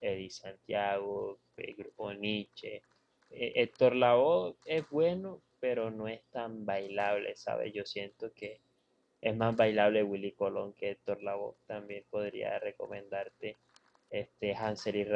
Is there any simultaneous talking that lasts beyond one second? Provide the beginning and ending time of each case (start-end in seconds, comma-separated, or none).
none